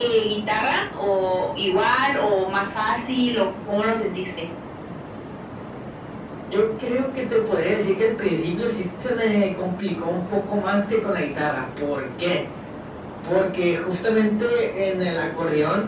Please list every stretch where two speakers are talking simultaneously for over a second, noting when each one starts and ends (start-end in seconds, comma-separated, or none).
none